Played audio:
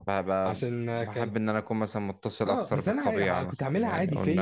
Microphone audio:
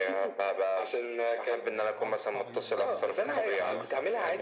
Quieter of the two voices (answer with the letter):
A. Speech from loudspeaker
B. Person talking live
B